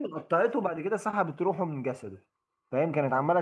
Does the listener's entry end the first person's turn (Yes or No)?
No